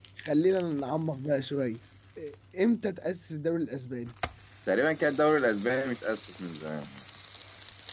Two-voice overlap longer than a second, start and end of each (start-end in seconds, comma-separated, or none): none